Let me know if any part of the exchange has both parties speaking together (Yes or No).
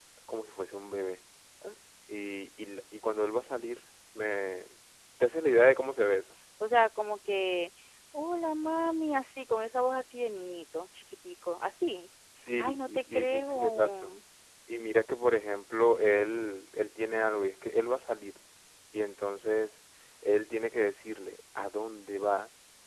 Yes